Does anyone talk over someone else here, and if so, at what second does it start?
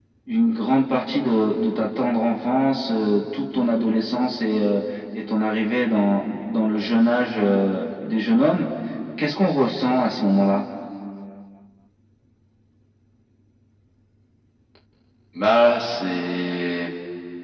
none

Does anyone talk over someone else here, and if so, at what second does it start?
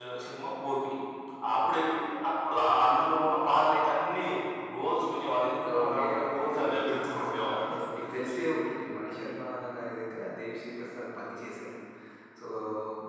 5.6 s

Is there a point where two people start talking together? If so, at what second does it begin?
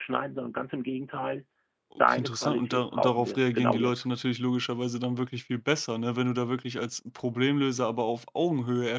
2.0 s

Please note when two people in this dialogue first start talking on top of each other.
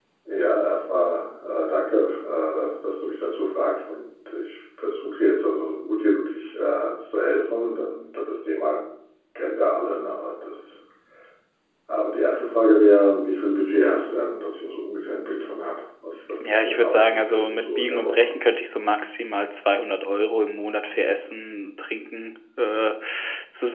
16.4 s

